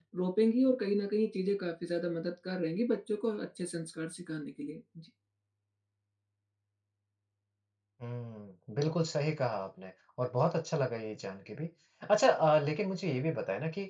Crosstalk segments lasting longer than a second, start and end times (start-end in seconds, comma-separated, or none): none